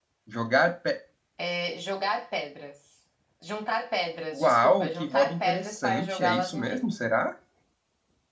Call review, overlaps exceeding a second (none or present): present